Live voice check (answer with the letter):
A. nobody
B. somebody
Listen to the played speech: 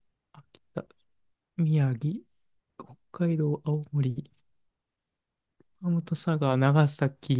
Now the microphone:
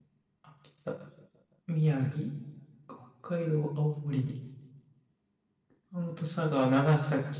A